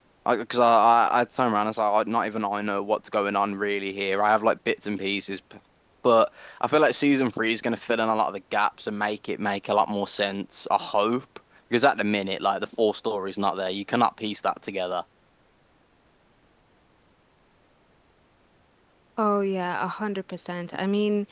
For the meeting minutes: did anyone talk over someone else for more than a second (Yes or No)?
No